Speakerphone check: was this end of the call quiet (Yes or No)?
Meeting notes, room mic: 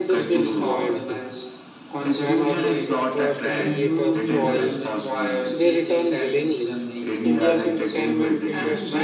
No